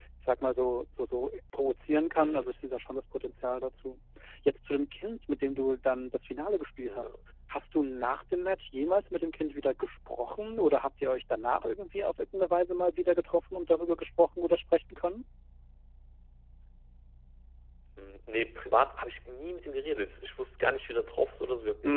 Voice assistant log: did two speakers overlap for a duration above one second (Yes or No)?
No